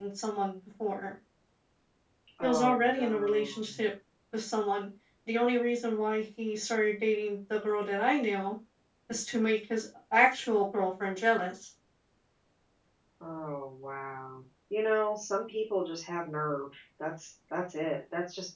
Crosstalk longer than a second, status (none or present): present